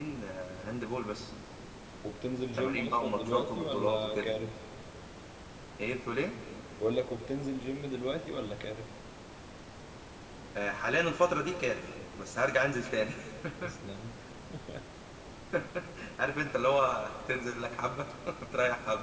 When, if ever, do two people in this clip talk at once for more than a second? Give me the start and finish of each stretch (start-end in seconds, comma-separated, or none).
2.6-4.3